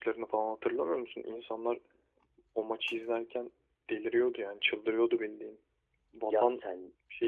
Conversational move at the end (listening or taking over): listening